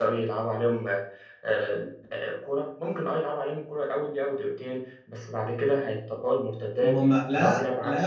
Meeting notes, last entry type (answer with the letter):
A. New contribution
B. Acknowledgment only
A